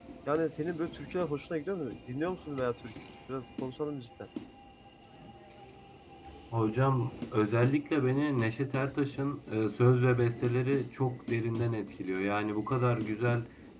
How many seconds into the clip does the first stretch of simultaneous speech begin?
none

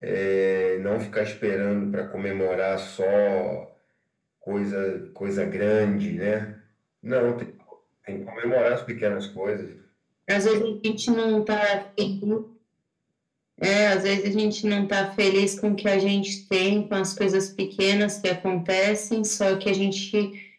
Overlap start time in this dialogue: none

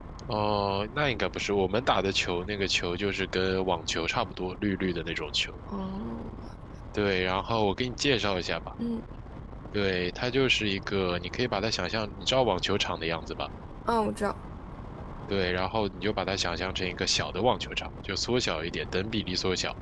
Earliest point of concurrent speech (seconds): none

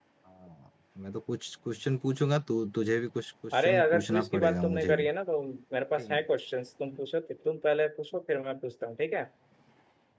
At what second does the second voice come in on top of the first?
4 s

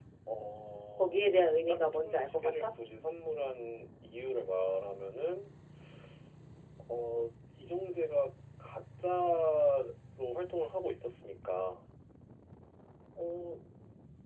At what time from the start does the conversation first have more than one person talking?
1 s

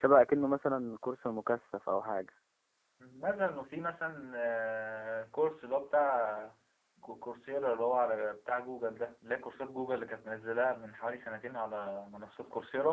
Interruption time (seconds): none

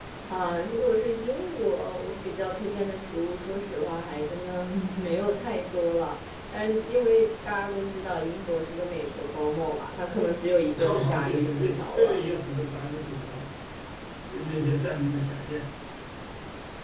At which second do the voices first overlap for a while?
11 s

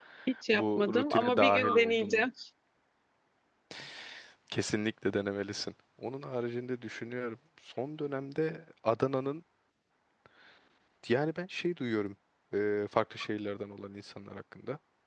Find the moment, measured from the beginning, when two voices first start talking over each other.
1 s

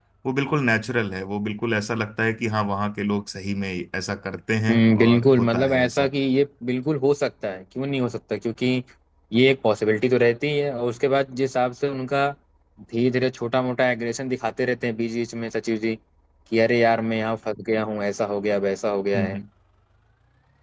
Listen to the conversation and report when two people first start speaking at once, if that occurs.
5 s

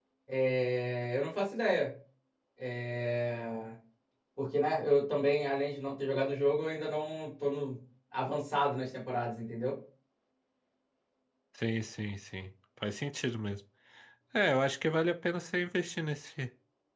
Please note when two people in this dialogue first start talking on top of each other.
none

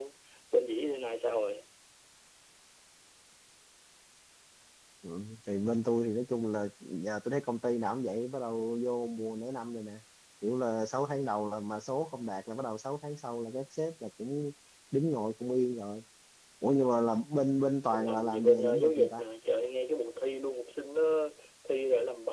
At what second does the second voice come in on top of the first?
18 s

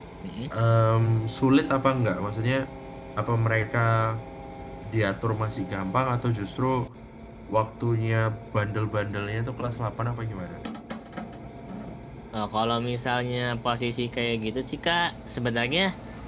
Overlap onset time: none

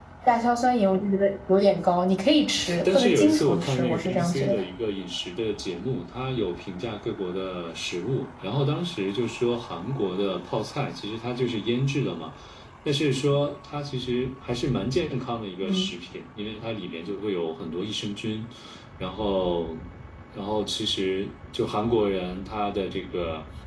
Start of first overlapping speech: 3 s

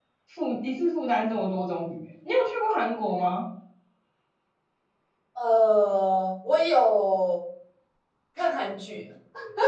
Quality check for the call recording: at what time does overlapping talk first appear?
none

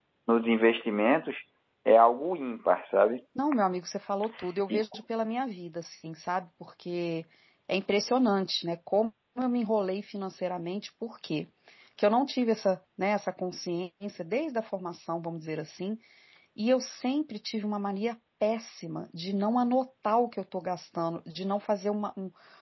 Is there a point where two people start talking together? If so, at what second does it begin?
none

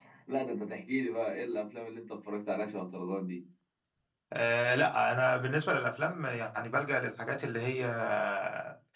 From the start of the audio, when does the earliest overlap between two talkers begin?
none

